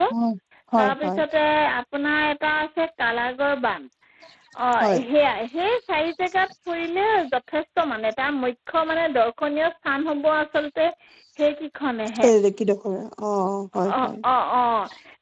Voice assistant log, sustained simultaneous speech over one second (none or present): none